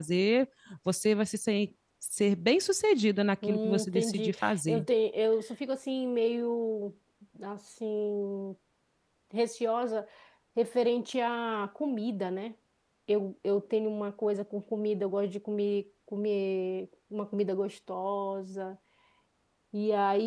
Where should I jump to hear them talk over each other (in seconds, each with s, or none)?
3.4 s